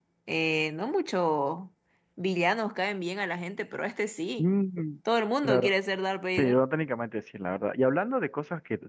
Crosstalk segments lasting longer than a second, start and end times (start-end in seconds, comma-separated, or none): none